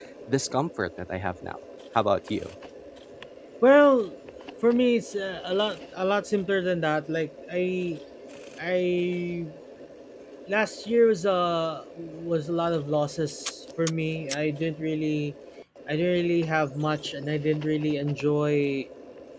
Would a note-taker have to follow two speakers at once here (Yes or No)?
No